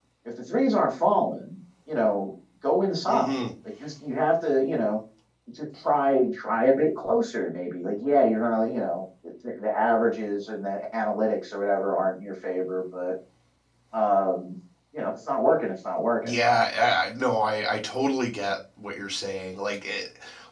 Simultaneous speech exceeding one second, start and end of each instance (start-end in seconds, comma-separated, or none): none